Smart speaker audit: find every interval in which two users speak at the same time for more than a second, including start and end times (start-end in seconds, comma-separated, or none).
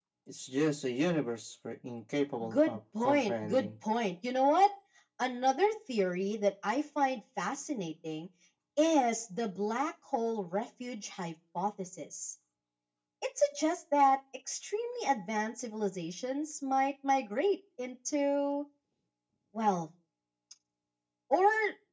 2.5-3.7